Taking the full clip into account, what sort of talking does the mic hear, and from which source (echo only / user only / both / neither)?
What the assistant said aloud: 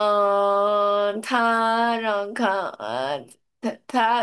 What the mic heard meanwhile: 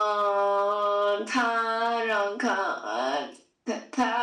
echo only